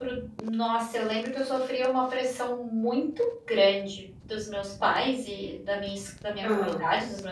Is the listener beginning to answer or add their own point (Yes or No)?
No